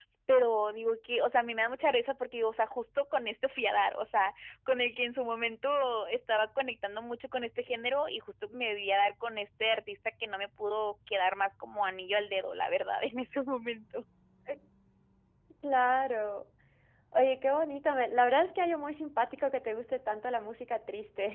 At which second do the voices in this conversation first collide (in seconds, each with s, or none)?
none